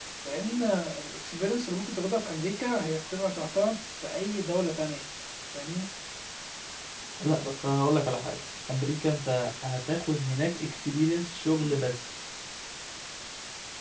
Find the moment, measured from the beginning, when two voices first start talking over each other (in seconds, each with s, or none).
none